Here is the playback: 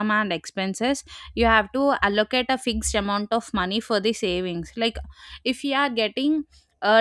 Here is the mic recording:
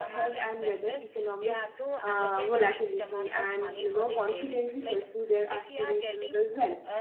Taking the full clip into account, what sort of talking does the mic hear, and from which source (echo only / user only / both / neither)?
both